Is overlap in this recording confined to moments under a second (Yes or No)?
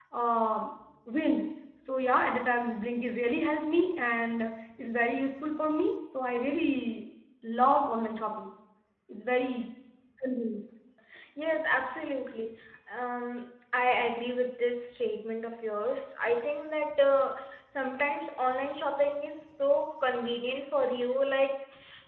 Yes